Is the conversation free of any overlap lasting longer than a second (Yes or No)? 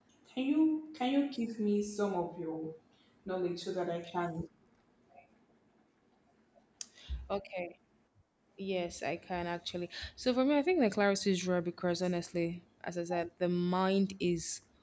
Yes